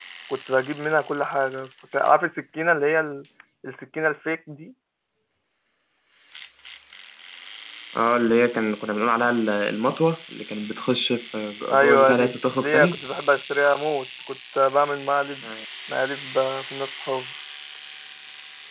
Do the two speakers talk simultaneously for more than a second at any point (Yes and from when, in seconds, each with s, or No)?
Yes, from 11.7 s